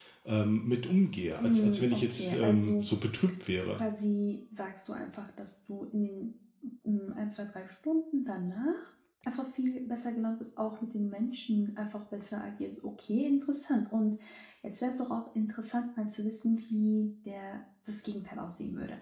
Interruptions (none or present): present